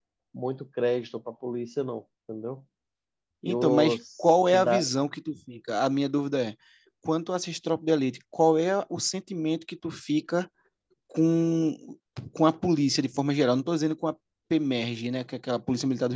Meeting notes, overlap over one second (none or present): present